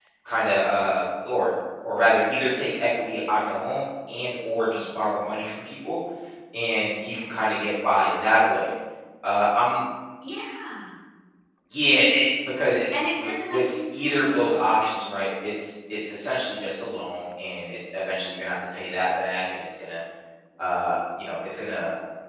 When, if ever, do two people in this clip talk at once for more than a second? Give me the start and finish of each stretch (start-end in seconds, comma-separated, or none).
13.1-14.5